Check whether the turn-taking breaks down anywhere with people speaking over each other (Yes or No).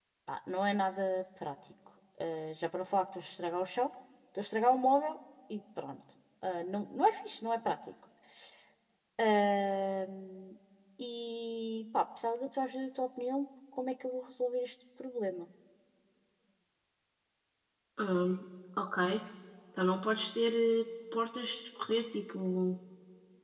No